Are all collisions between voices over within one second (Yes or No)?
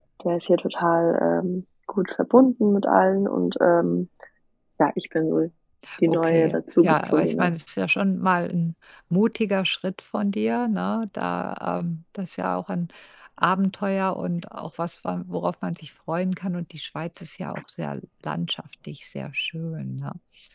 No